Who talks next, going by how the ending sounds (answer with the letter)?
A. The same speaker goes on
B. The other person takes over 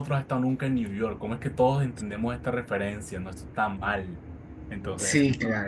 B